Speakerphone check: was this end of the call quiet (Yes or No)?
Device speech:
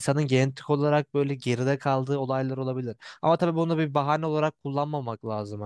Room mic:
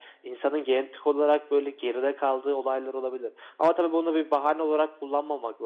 Yes